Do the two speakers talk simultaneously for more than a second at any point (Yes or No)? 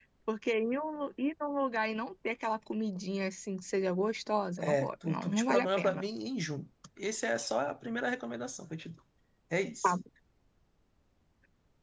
Yes